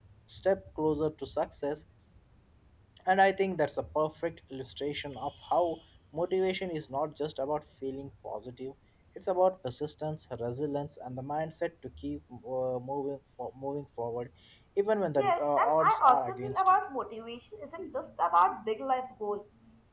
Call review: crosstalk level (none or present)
present